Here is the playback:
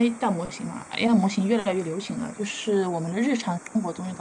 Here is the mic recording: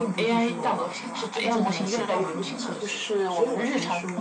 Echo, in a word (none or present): present